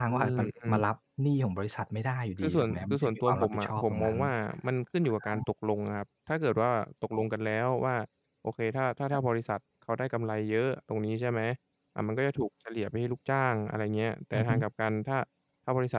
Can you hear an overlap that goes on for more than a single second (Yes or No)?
Yes